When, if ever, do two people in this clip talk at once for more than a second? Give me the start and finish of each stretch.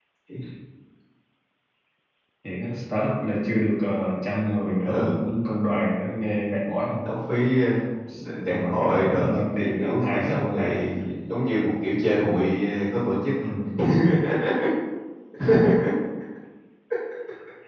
8.5-10.8

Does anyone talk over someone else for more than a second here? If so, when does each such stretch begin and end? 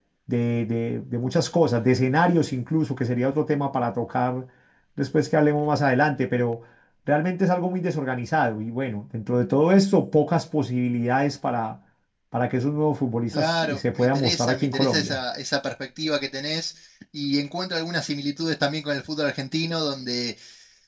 13.3-15.2

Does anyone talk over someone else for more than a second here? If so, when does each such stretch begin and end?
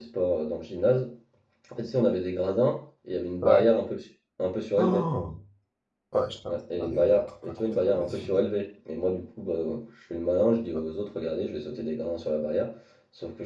6.8-8.4

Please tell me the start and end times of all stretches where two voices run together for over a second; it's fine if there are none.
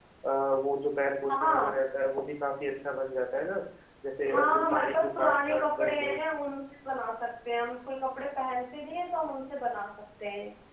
4.3-6.1

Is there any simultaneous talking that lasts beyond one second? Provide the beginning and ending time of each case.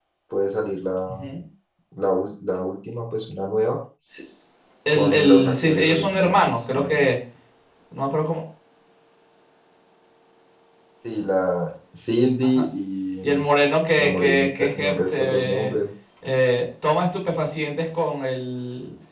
4.9-7.1, 14.0-15.7

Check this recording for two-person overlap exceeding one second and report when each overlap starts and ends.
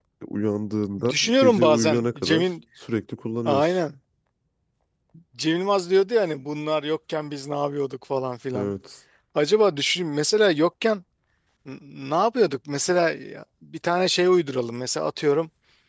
1.1-2.5

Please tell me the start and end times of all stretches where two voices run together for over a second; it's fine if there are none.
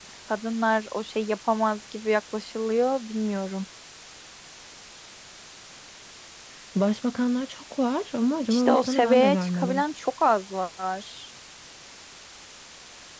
8.5-9.8

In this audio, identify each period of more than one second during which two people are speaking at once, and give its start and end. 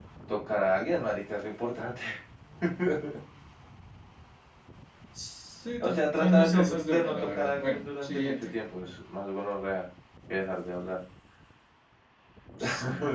5.8-8.6

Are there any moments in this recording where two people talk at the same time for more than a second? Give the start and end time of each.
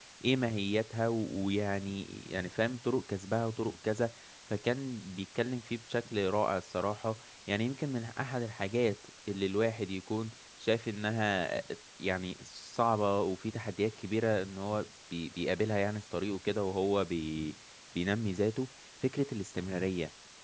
none

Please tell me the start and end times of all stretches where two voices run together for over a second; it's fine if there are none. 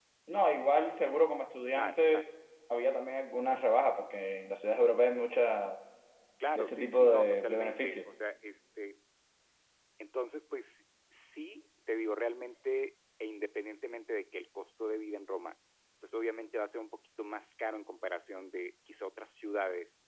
6.6-8.0

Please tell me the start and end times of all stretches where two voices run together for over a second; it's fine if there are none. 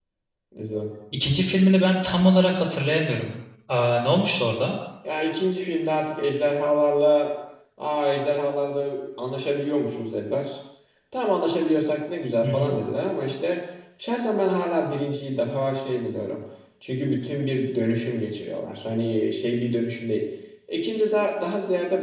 none

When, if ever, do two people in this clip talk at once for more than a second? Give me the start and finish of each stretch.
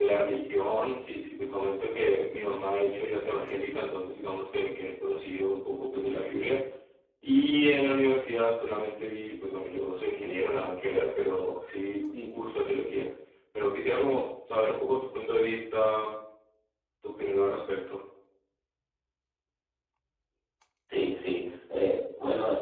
none

